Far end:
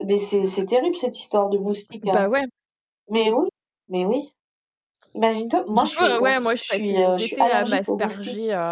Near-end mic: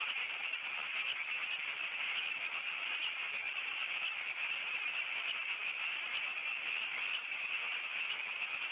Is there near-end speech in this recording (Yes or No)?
No